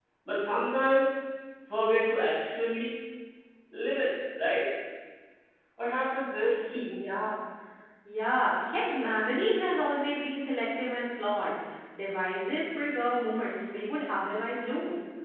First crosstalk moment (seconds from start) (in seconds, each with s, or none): none